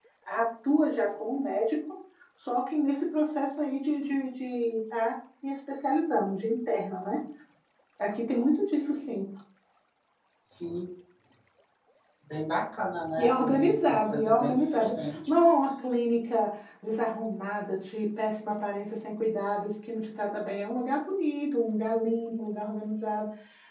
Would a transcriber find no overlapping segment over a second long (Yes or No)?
No